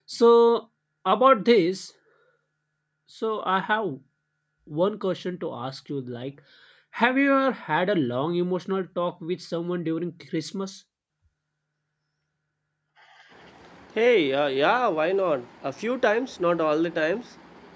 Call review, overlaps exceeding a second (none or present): none